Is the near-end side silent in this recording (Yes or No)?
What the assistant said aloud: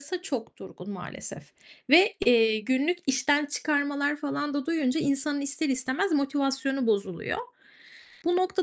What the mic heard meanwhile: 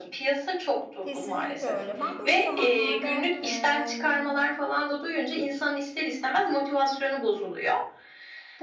No